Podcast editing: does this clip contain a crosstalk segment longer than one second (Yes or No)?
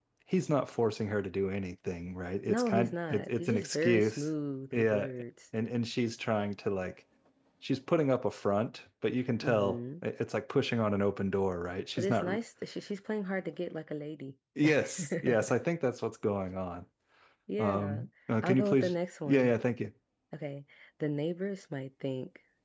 Yes